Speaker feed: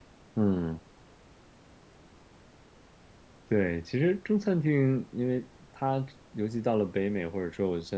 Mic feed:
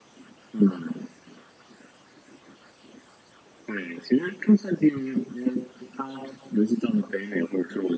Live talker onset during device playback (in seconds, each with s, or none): none